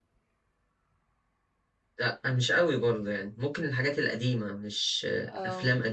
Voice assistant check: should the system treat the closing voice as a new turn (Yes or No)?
No